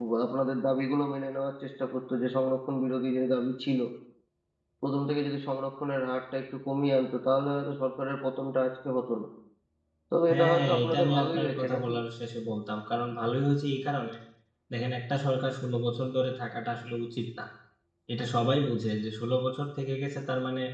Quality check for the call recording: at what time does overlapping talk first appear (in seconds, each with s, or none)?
10.3 s